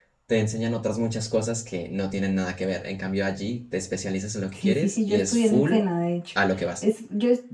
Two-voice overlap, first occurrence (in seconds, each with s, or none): 4.5 s